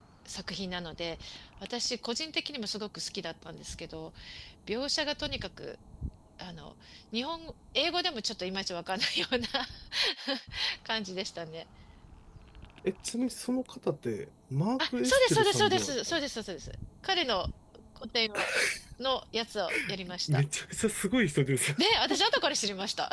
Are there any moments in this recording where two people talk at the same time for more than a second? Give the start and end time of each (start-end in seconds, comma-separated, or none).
14.8-16.2